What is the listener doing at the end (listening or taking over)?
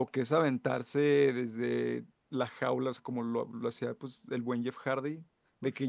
listening